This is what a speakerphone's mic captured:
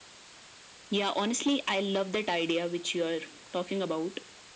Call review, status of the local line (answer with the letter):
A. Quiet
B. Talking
A